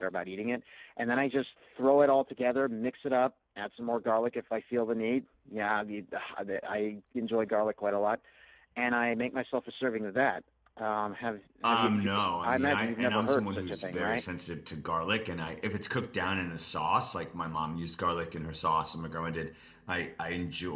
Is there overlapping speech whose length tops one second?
Yes, from 11.6 s

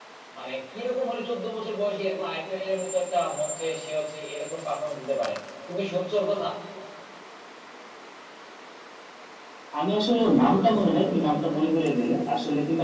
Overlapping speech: No

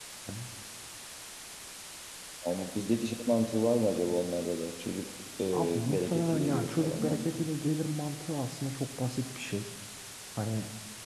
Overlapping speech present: Yes, from 5.5 s

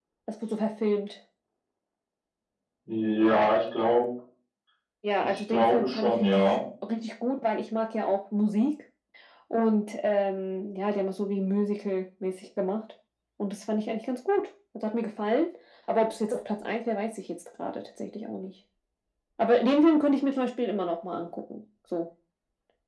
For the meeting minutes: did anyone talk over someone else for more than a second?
Yes, from 5.2 s

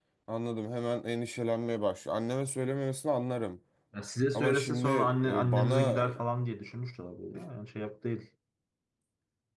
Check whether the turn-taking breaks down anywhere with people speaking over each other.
Yes, from 4.3 s

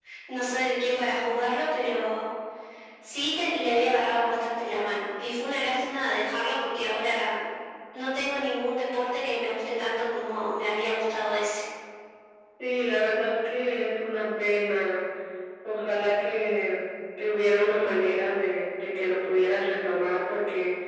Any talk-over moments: No

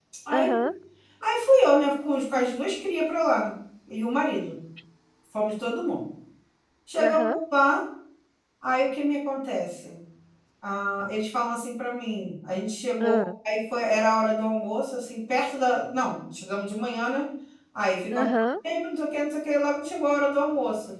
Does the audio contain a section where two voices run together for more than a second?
No

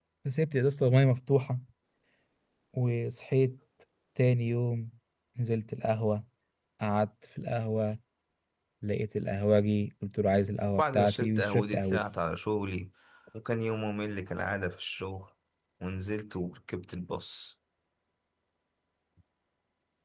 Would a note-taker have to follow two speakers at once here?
Yes, from 10.8 s

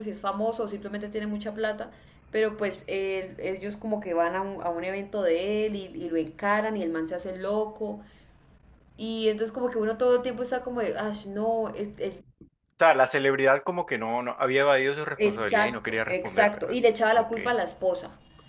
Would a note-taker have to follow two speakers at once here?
Yes, from 15.2 s

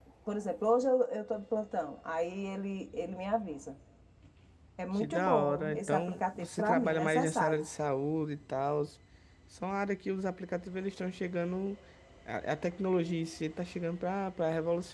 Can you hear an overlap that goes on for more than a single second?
Yes, from 5.0 s

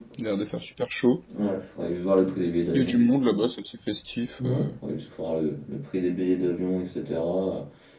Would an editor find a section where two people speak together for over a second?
No

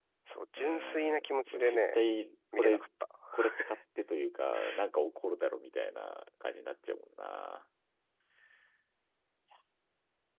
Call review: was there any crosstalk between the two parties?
Yes, from 0.6 s

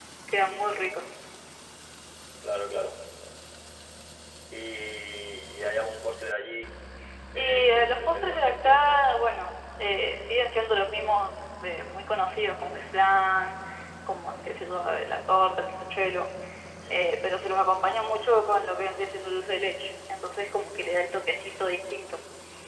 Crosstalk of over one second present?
Yes, from 7.4 s

